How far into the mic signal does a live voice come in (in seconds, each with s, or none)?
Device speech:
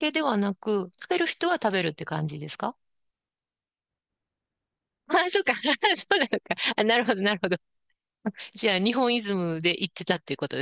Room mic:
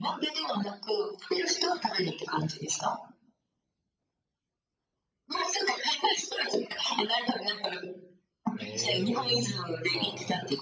8.5 s